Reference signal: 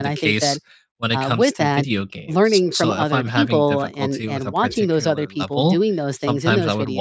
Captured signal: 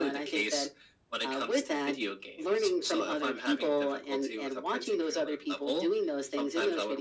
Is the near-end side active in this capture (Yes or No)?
No